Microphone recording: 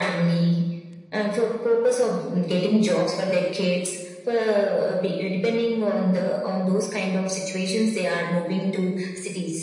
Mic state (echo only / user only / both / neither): echo only